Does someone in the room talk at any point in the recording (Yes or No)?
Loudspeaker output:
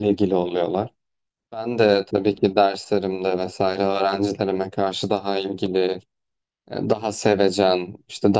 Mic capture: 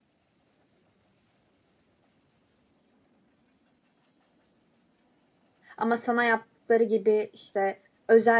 Yes